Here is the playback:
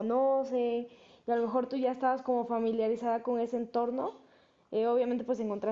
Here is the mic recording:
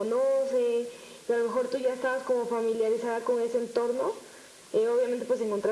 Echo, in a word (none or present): present